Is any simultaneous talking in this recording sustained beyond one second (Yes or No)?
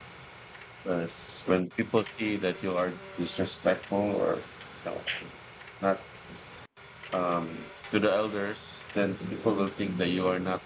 No